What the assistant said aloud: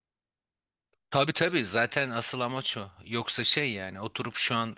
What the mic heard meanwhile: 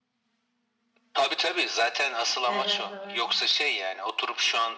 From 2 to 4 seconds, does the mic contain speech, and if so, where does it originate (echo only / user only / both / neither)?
both